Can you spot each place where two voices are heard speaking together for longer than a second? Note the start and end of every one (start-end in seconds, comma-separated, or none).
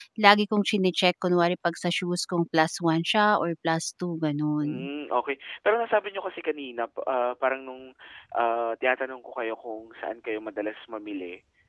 none